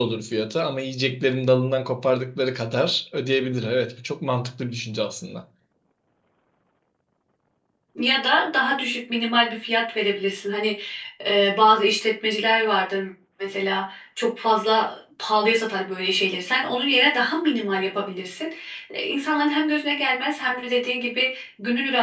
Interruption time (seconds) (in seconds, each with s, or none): none